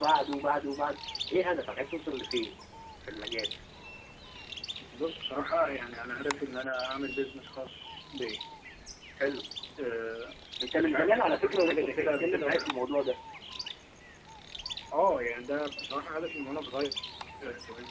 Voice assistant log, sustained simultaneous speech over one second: present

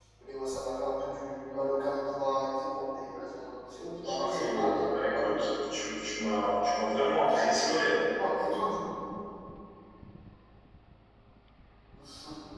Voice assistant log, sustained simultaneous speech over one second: present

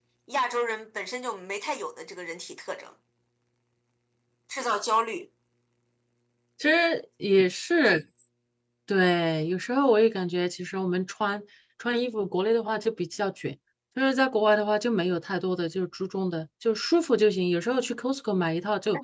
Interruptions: none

